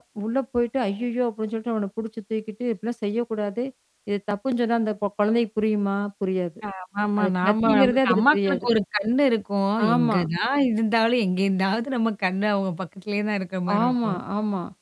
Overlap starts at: 7.2 s

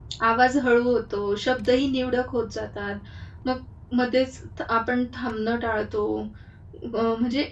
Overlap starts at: none

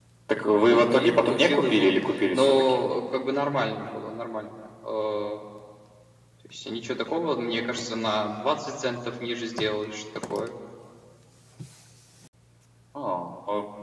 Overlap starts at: 0.7 s

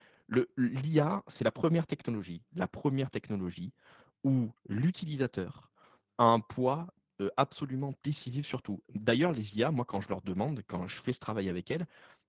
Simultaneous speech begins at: none

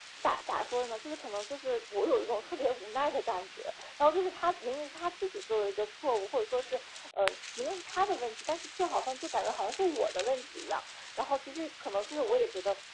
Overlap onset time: none

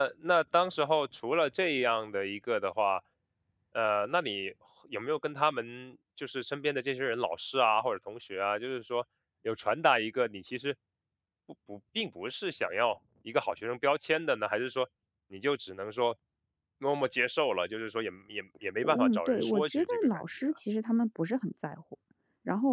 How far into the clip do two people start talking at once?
18.8 s

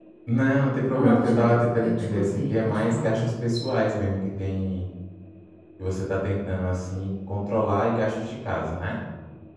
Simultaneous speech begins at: 0.9 s

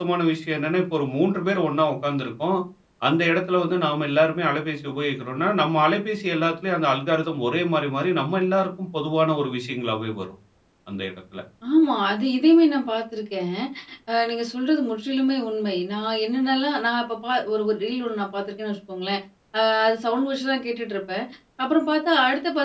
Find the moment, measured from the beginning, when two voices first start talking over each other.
none

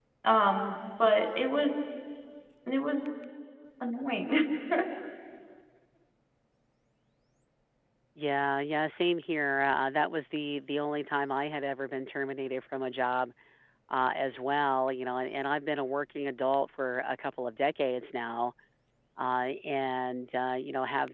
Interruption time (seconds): none

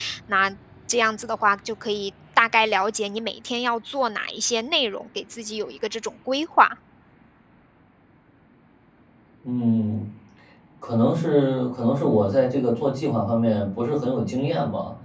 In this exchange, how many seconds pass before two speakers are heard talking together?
none

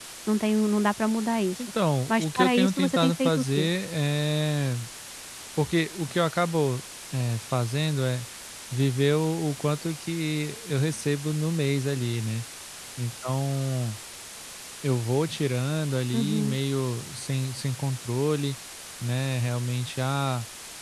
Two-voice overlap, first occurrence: 2.1 s

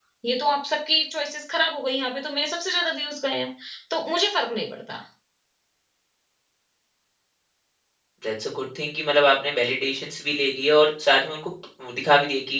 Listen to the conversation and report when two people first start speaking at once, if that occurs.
none

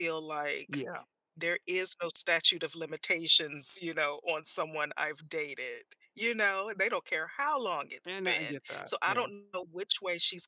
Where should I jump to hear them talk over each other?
8.0 s

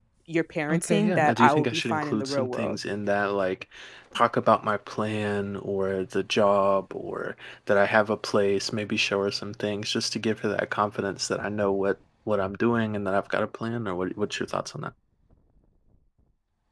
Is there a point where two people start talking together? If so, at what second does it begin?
0.7 s

